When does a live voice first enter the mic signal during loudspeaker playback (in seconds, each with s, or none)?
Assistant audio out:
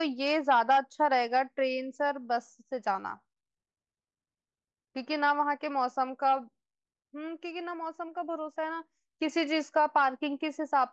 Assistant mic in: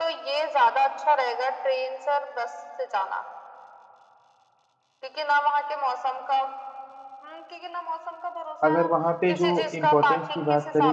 8.6 s